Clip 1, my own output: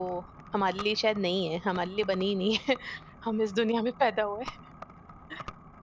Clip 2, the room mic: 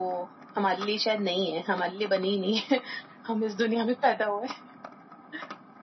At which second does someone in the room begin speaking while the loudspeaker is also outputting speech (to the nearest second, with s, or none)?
none